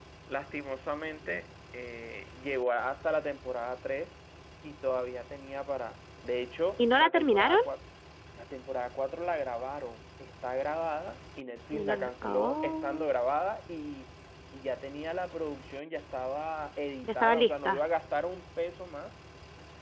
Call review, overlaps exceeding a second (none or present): present